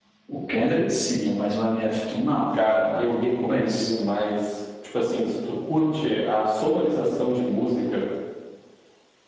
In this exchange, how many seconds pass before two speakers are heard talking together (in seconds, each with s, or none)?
2.5 s